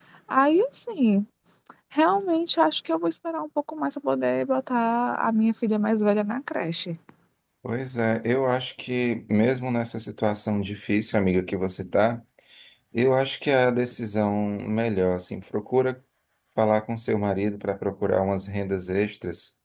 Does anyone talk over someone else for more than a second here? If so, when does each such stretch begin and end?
none

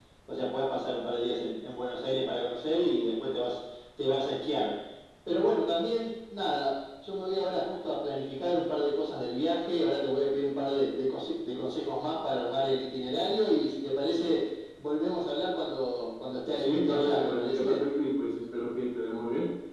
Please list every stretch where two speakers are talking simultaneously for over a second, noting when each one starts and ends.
16.6-17.8

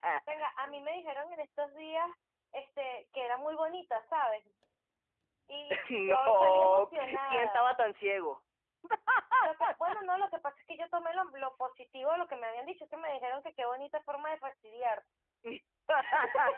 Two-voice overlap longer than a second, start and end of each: 5.9-7.6

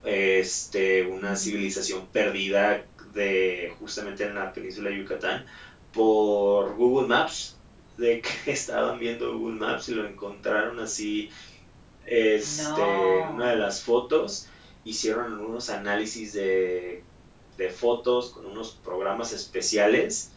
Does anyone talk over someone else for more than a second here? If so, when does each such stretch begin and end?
12.4-13.7

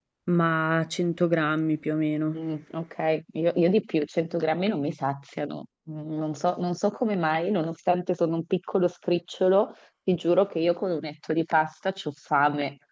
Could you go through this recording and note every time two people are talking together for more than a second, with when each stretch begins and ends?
none

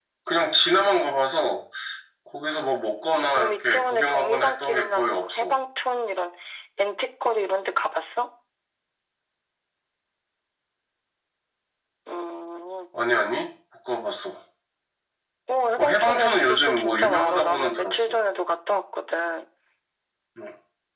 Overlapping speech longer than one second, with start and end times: 3.0-5.5, 15.8-18.1

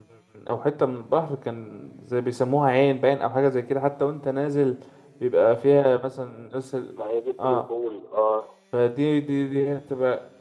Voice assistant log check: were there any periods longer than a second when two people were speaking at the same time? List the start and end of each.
none

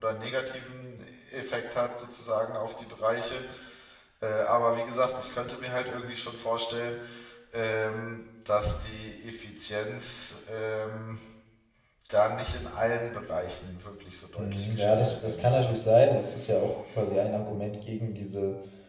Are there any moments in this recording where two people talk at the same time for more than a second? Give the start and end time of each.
14.4-15.7

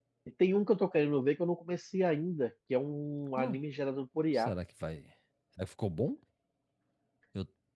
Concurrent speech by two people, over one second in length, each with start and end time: none

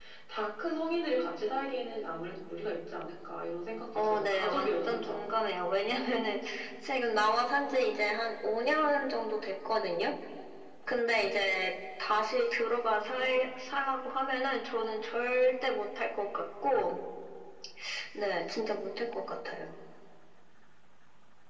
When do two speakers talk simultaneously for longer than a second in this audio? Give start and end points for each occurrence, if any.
3.9-5.2

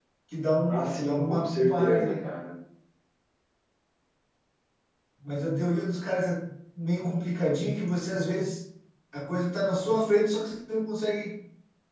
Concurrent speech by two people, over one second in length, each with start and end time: 0.6-2.3

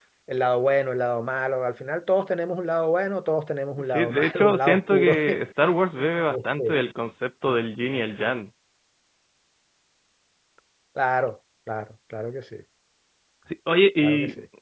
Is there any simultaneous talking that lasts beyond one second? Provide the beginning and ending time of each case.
3.9-5.1

